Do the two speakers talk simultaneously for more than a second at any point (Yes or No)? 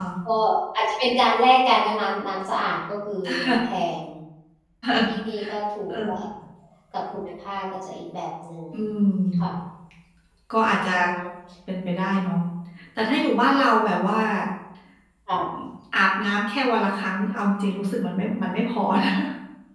No